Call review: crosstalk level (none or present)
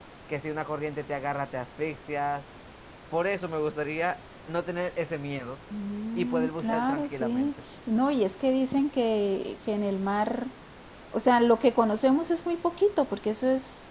present